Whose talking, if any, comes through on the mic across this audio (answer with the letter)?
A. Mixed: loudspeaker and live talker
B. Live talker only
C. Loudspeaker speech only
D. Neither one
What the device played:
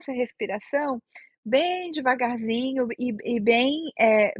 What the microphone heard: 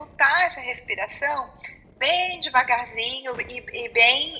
C